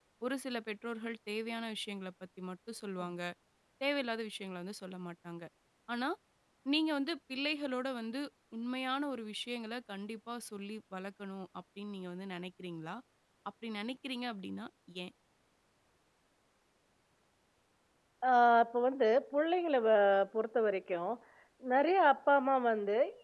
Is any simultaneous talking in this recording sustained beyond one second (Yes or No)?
No